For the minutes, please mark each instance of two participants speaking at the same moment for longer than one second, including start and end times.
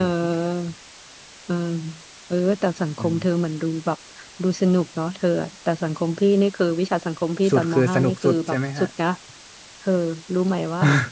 7.5-8.9

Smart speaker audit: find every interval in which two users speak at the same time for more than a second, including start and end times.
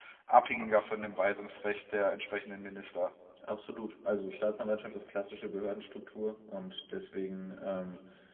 none

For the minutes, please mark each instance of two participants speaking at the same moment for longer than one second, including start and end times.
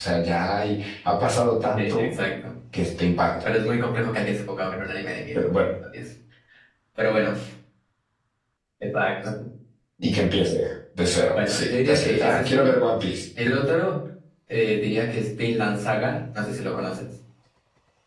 11.3-12.8

